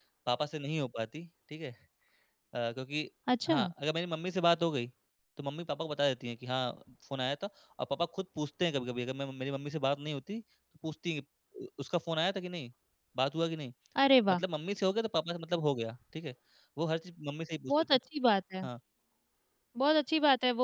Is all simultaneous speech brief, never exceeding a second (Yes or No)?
Yes